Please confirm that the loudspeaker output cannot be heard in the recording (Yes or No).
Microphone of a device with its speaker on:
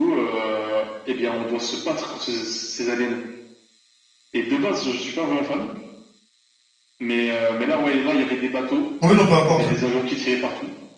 No